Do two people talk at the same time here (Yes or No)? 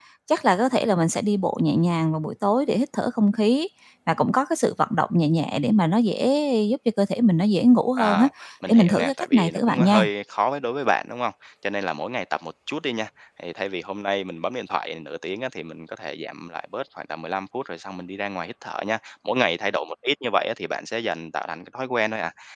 Yes